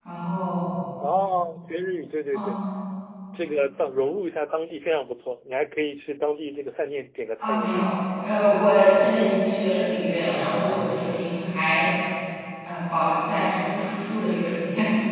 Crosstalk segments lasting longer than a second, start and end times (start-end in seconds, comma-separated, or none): none